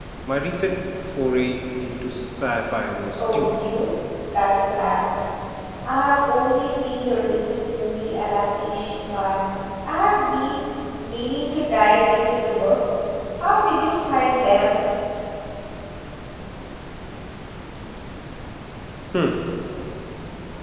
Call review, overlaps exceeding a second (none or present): none